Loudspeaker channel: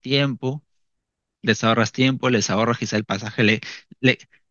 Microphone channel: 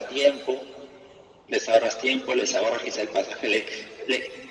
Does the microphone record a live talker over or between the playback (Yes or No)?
No